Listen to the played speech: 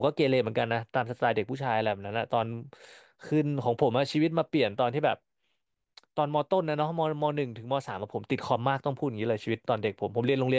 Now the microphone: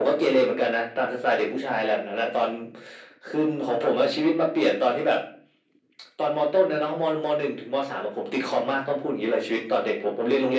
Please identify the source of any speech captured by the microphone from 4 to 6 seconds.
echo only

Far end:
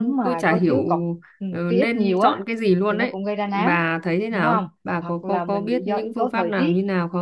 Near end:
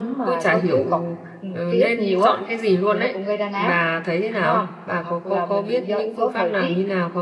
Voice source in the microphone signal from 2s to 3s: echo only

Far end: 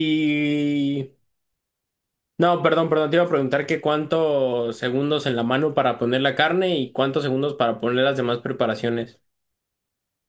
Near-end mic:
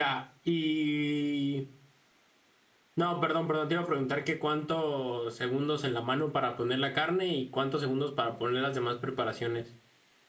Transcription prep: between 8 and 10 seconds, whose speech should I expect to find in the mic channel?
echo only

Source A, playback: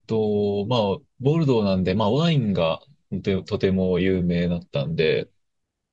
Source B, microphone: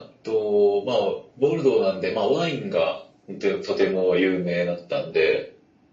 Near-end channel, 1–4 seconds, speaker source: echo only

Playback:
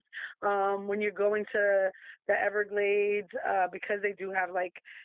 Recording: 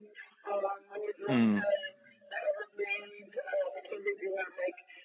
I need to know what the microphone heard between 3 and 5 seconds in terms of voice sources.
echo only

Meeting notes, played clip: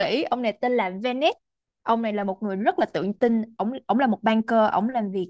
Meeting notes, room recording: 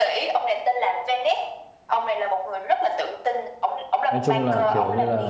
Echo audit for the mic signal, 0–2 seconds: echo only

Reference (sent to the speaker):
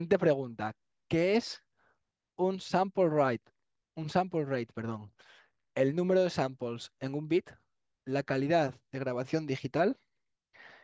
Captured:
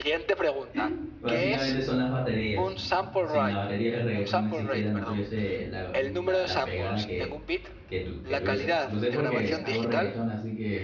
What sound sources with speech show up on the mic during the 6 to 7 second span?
both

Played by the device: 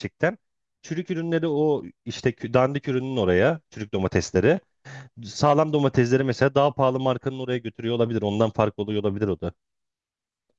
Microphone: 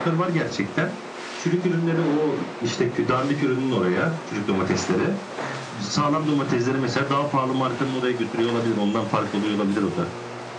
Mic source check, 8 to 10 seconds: echo only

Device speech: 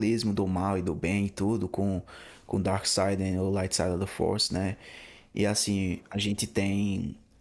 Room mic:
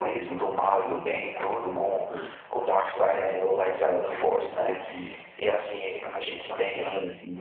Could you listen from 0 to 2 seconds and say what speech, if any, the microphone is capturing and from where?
both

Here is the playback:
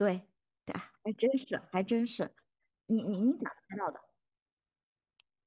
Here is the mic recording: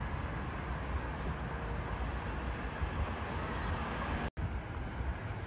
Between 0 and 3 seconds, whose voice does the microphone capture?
neither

